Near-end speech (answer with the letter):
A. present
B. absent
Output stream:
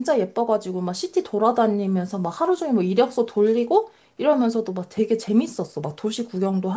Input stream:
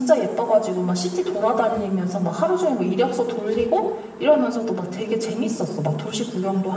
B